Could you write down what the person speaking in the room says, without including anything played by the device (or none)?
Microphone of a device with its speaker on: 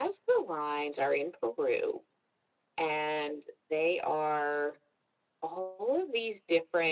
none